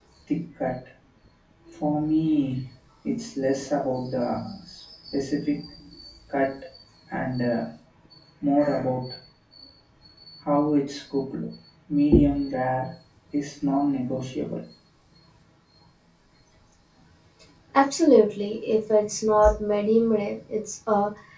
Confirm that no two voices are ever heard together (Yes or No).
Yes